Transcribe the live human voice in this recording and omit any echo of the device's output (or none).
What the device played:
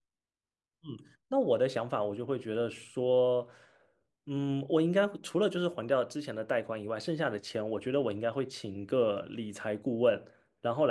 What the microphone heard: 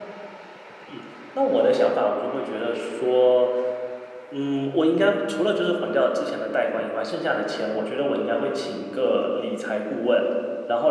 none